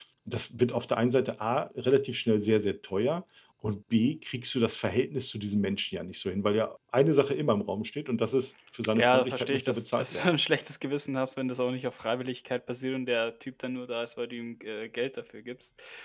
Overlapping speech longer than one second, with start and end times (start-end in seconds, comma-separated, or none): 8.9-10.3